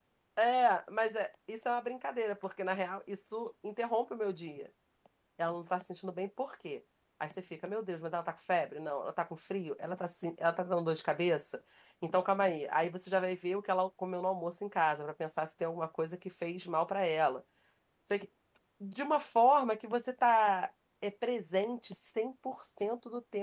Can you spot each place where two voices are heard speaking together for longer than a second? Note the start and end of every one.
none

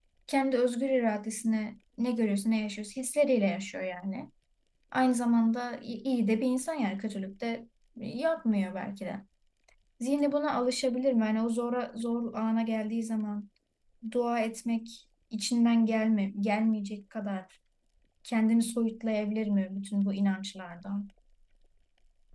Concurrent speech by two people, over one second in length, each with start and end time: none

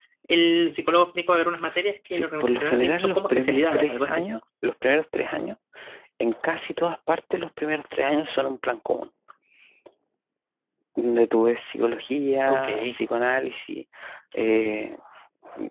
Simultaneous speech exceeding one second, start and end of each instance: 2.1-4.3

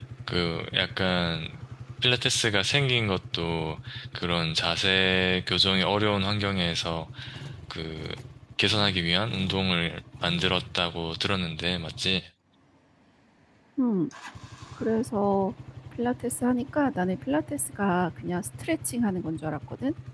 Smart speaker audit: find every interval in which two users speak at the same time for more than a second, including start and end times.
none

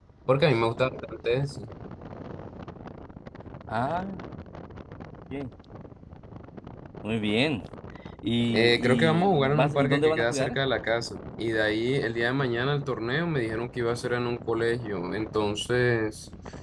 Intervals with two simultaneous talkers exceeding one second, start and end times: 8.5-10.6

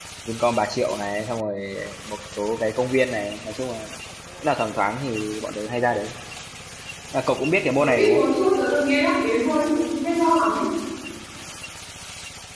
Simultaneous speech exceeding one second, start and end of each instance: none

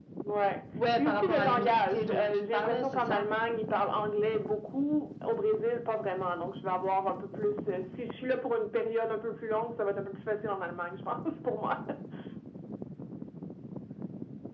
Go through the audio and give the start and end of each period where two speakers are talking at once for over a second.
1.0-3.2

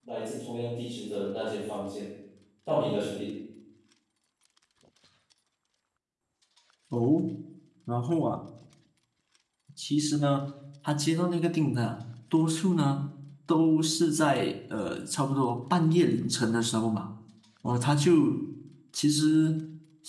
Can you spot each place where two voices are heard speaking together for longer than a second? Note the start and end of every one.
none

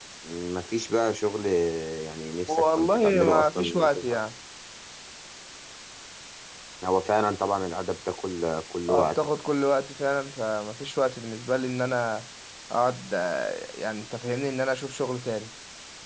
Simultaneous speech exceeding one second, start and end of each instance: 2.5-4.2

